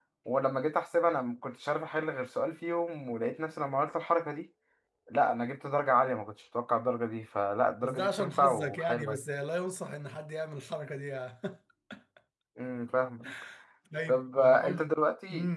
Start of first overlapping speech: 7.8 s

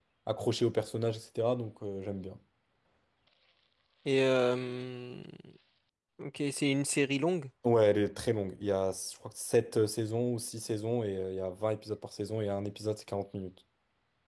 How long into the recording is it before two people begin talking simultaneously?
none

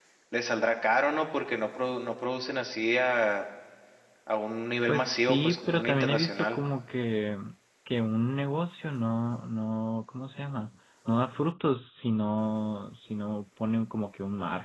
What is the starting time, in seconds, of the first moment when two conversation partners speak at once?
4.9 s

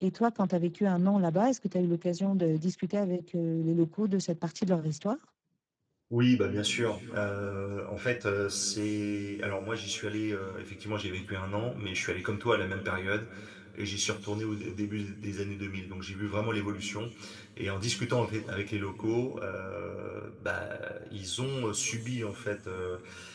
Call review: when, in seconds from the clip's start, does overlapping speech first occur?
none

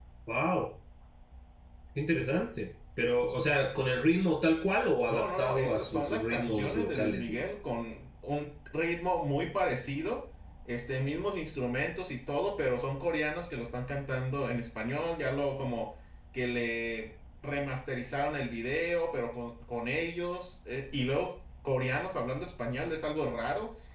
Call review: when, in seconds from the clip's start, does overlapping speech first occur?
5.1 s

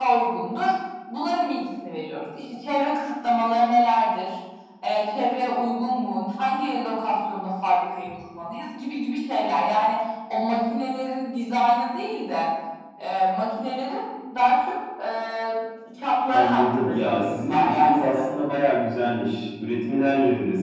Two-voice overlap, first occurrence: 16.3 s

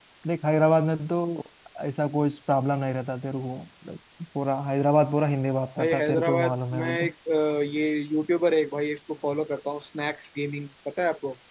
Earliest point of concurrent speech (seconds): 5.8 s

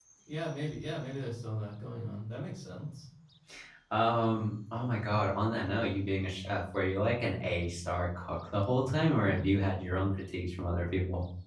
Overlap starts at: none

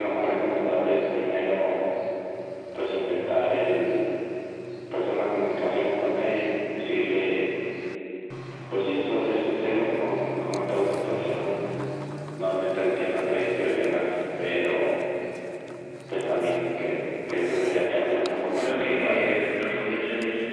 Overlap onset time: 17.8 s

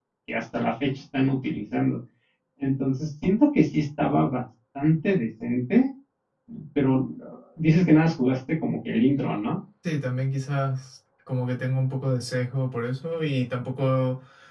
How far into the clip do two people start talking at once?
none

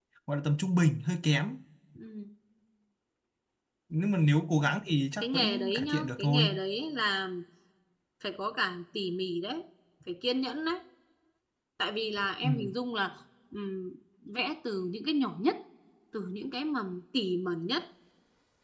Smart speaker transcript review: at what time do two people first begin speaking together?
5.2 s

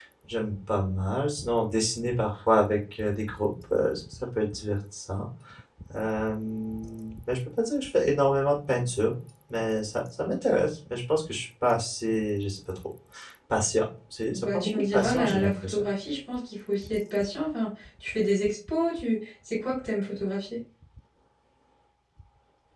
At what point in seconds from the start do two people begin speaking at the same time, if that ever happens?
14.2 s

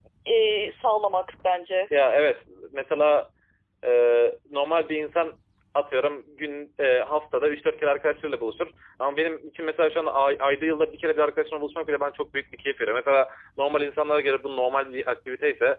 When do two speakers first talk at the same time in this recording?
none

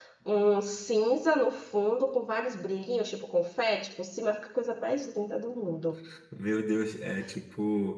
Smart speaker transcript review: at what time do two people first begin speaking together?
none

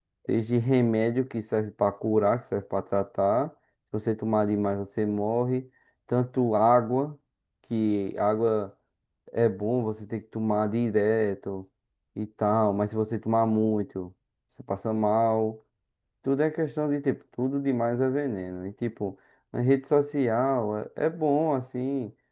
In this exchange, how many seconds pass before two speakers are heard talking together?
none

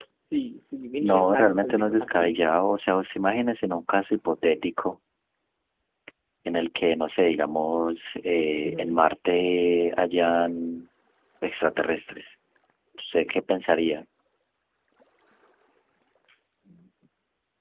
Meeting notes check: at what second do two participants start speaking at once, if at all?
1.0 s

